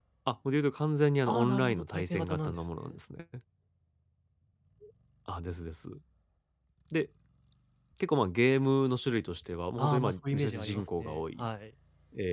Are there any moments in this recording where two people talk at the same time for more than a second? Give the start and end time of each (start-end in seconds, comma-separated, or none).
1.2-3.0, 9.8-11.5